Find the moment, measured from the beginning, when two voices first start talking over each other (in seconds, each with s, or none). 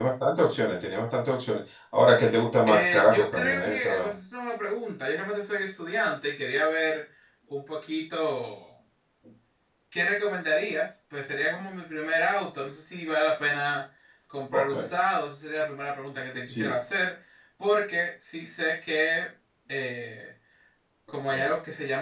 2.7 s